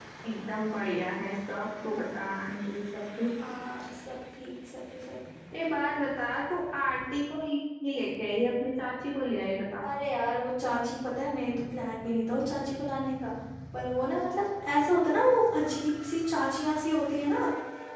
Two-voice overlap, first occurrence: none

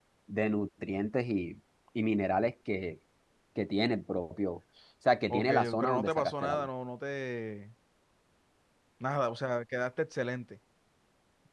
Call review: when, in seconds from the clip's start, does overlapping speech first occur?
5.3 s

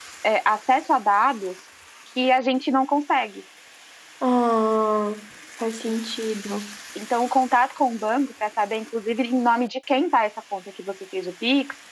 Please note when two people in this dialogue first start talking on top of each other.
none

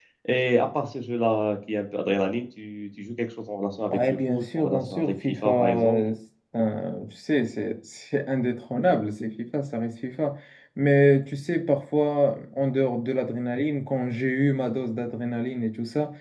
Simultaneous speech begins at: 3.9 s

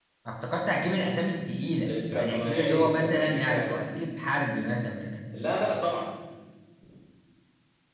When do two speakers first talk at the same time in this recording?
2.1 s

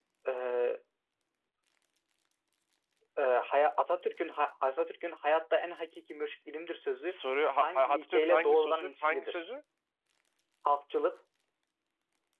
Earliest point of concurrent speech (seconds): 7.6 s

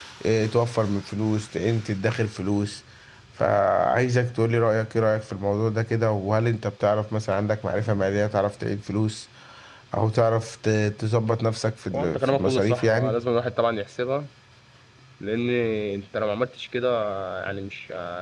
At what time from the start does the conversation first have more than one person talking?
11.9 s

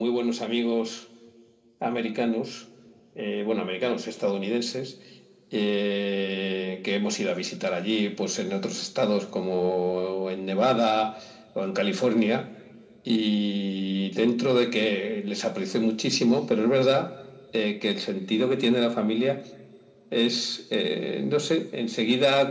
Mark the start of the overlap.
none

